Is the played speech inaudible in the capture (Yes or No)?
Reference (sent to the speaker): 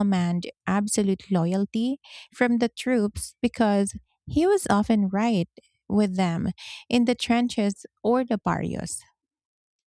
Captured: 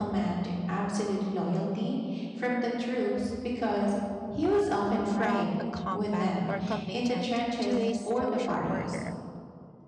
No